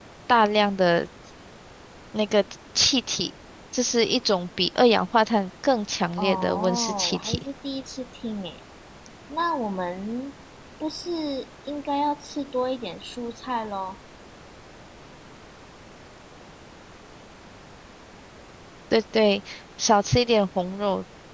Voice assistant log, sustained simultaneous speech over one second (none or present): present